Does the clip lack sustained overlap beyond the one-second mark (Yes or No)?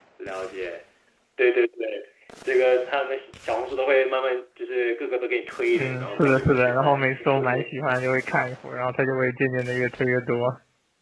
No